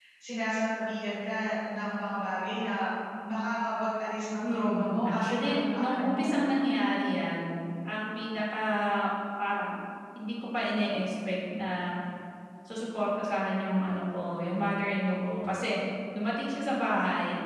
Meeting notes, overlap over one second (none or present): present